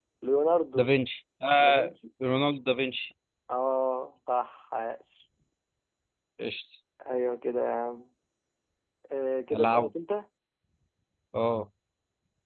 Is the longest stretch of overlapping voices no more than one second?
Yes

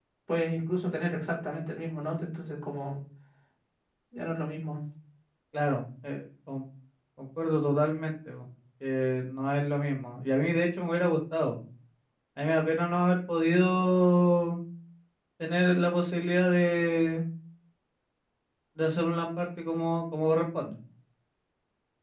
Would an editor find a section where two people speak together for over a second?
No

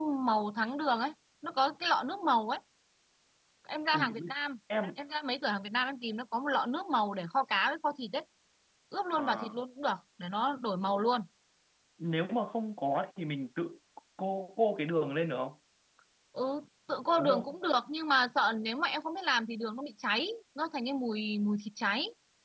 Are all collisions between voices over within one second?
Yes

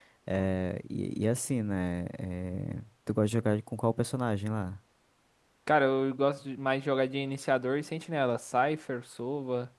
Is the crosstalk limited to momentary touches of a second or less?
Yes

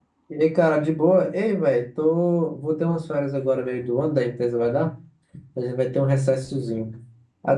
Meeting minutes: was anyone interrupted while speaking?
No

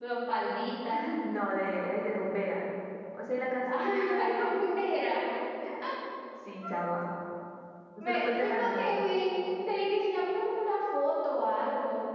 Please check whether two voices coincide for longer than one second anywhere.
Yes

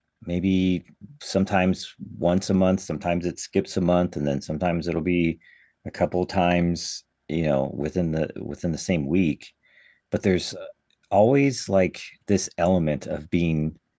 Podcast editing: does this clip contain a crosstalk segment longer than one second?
No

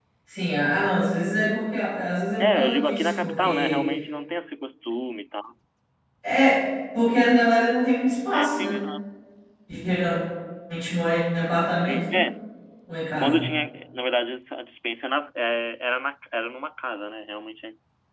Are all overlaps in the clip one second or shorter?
No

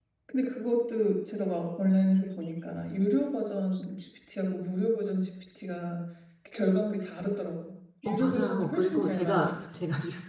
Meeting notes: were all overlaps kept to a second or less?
No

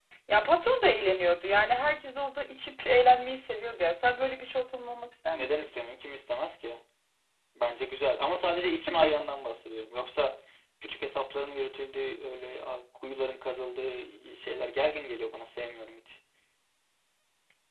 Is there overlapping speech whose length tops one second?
No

